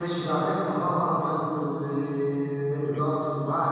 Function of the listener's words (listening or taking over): listening